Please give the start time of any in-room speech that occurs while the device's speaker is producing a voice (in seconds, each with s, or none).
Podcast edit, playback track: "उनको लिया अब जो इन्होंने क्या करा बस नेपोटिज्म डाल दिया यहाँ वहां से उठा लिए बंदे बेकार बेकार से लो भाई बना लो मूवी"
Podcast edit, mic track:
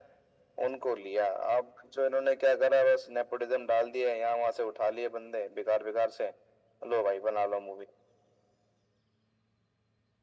none